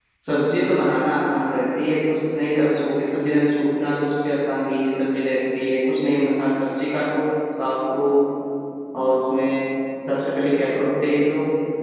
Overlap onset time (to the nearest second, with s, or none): none